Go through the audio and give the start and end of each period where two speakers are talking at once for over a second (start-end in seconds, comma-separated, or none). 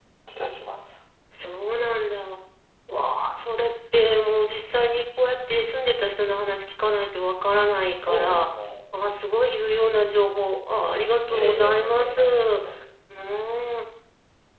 11.3-12.6